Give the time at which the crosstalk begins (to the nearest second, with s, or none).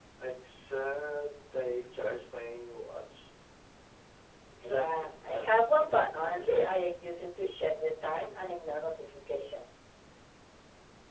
5 s